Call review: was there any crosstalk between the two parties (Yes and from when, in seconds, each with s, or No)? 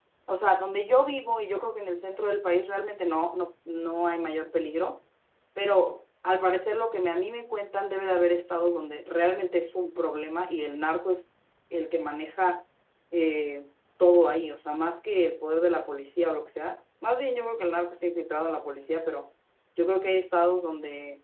No